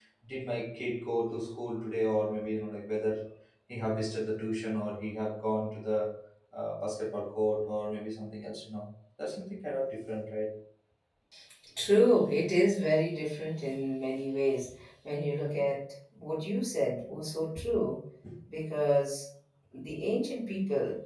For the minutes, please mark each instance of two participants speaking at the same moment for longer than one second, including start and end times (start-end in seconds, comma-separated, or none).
none